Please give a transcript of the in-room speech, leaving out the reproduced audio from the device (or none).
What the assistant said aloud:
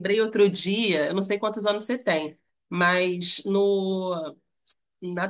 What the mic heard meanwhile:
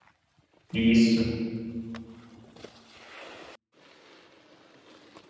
Isso.